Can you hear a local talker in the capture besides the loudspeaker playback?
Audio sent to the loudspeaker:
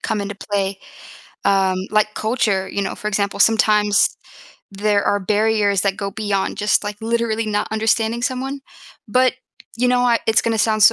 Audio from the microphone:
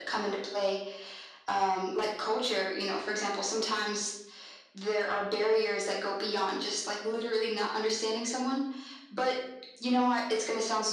No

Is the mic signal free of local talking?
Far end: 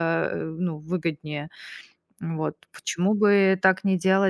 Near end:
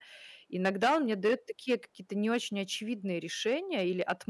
No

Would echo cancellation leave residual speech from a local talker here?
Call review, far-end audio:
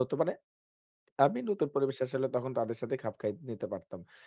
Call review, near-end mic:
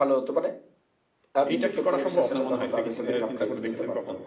Yes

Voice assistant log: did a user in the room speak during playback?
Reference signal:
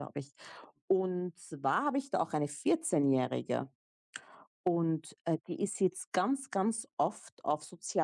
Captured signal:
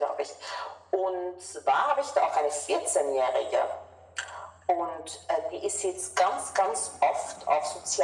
No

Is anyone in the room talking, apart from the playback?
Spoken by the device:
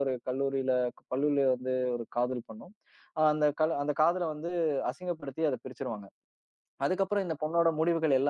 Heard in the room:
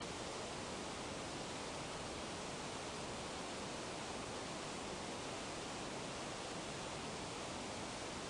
No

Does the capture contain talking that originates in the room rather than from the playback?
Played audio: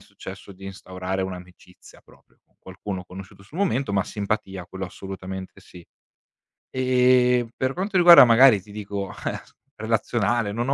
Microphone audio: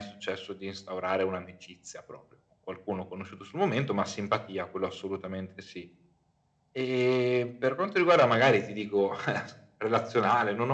No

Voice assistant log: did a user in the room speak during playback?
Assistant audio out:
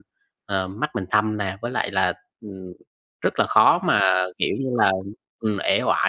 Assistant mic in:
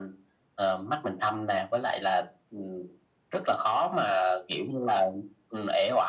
No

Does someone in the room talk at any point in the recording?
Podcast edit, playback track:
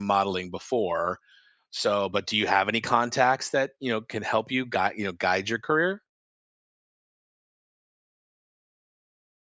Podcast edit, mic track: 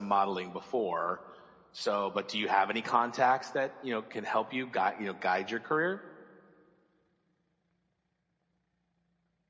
No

